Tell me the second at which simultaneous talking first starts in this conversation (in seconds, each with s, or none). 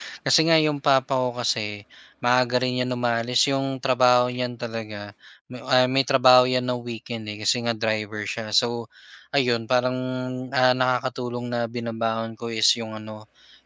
none